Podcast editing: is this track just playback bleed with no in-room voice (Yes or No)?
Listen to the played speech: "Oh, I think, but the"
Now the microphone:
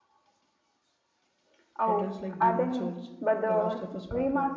No